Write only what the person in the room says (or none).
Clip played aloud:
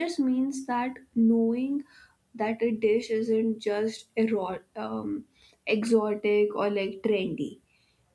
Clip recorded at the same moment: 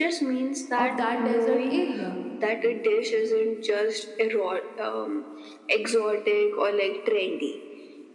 of that desert area